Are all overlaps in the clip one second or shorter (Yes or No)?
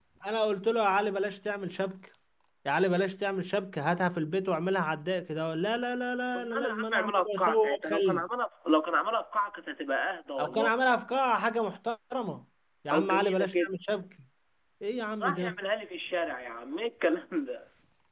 No